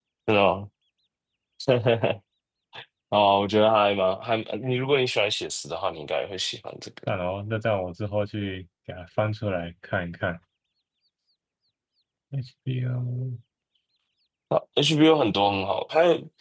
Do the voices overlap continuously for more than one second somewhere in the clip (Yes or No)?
No